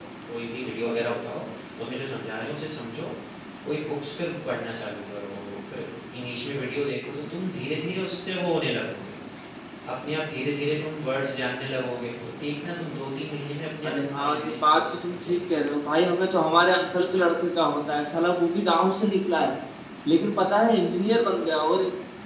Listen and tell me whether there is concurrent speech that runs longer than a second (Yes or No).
Yes